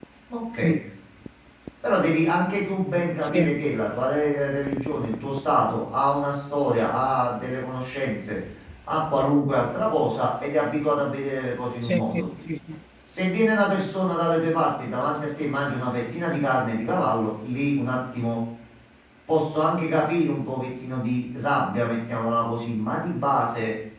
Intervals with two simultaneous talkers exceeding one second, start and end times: none

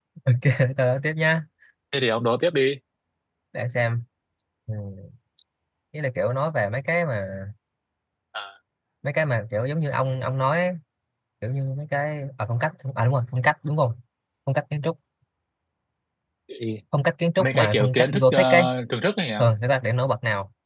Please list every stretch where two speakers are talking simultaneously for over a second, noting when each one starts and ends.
17.4-18.7

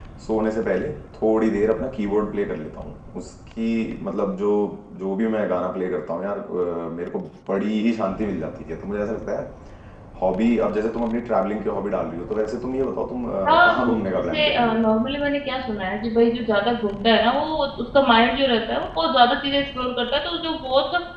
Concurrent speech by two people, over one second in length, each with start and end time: 13.5-14.8

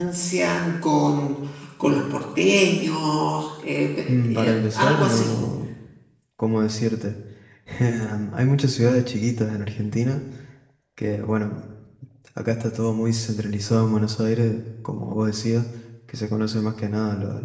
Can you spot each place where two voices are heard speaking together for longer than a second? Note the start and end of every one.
4.1-5.3

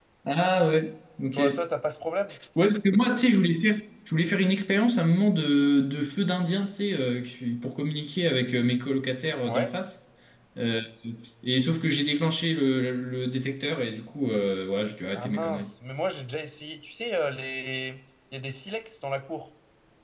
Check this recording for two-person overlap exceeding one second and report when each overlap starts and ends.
none

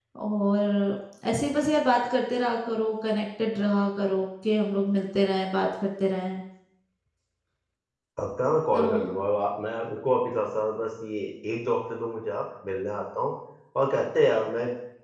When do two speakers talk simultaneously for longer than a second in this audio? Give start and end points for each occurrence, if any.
none

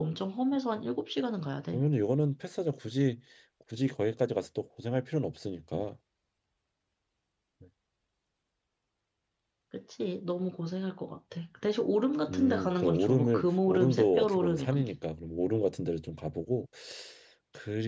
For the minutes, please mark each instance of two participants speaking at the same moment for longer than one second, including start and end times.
12.3-14.9

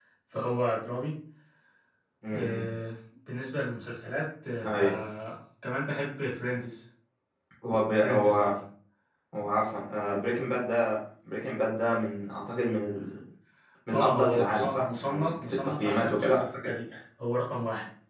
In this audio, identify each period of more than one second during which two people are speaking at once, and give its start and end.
13.9-16.7

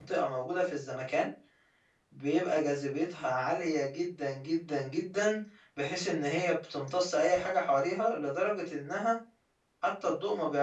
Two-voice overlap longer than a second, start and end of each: none

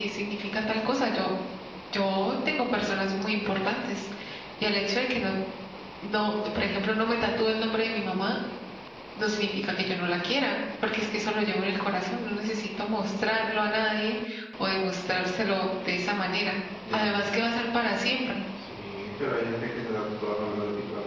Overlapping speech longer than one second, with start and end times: none

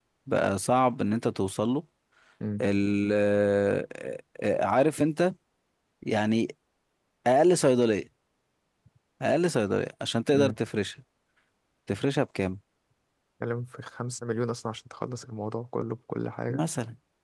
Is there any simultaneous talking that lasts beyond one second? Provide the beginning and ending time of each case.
none

